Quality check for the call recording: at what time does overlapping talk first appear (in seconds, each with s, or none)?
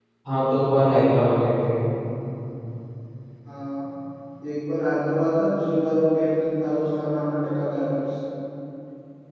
none